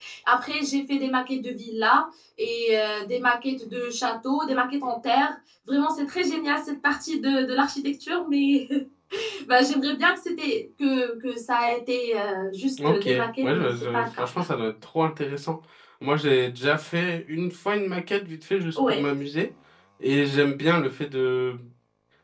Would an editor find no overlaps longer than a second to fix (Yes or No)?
No